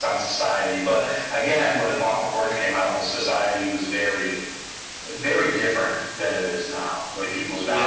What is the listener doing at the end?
taking over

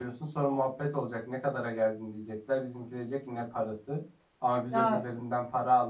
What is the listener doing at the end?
listening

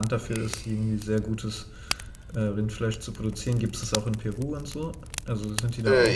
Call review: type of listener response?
taking over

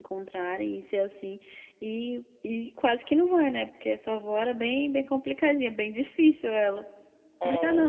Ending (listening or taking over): taking over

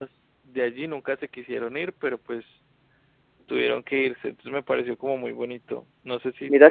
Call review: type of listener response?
taking over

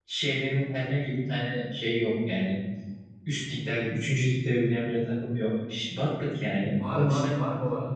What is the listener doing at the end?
taking over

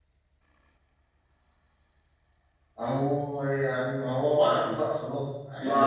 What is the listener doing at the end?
taking over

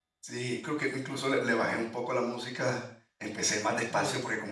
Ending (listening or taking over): listening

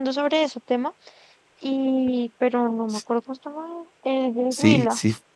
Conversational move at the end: taking over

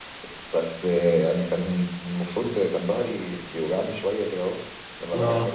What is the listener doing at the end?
listening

